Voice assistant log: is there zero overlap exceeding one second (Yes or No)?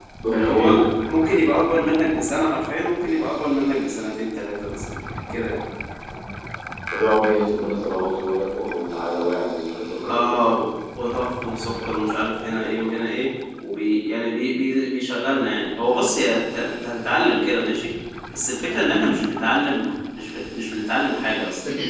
Yes